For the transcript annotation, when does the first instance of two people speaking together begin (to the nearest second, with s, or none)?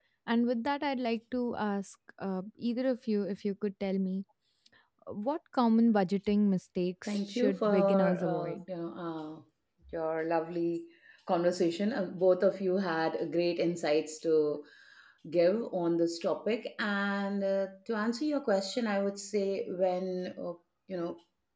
7 s